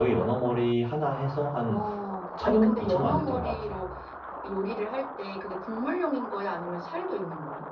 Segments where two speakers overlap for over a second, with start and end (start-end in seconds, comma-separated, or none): 2.4-3.7